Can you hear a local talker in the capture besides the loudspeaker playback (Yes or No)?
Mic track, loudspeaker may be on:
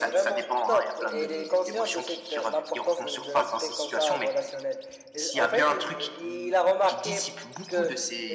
No